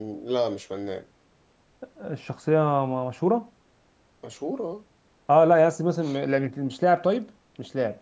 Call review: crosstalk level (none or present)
none